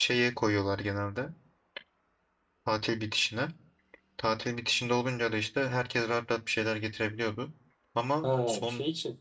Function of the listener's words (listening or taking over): taking over